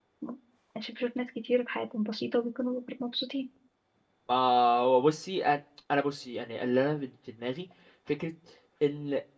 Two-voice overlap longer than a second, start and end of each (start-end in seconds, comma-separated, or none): none